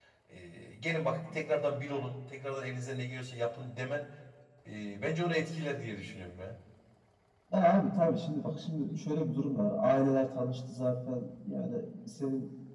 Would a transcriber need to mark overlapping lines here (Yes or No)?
No